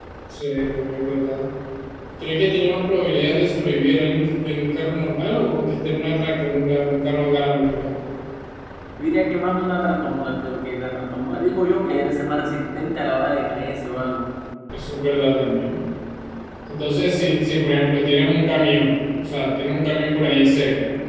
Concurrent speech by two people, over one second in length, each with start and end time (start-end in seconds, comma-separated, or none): none